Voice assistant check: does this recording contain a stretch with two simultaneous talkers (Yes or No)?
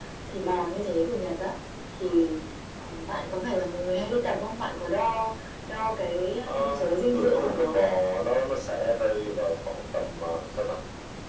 Yes